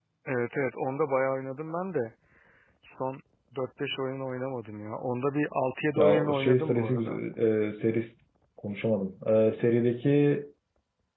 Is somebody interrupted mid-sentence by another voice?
Yes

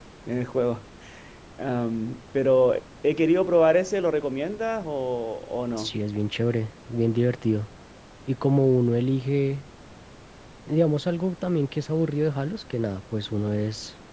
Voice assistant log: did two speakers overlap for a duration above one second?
No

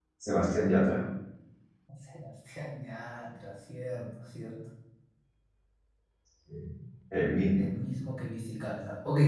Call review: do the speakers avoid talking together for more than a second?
Yes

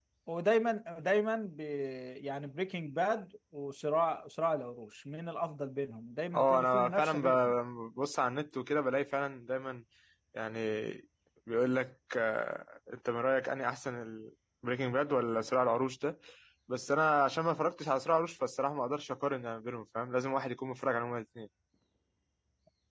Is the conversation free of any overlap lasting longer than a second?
No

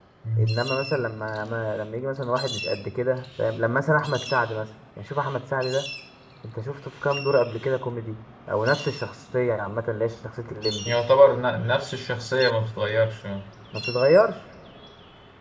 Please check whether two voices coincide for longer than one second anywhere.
No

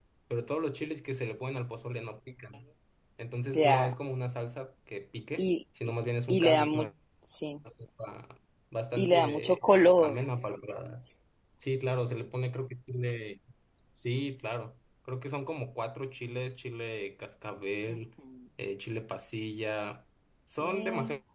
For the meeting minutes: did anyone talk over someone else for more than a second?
Yes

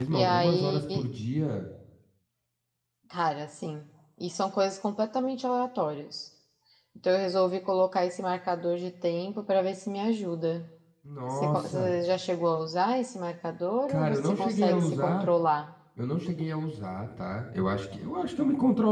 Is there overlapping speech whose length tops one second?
Yes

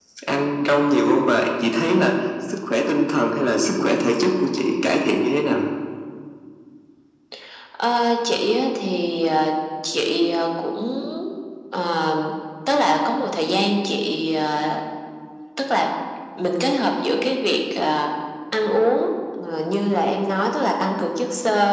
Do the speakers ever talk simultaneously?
No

